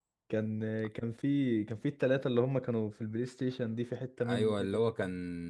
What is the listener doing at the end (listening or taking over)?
taking over